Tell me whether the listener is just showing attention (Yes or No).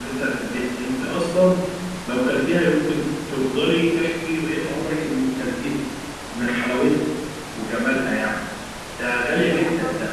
No